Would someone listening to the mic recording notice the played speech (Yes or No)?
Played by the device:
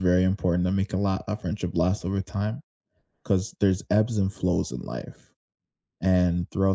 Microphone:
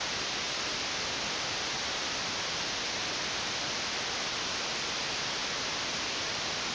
No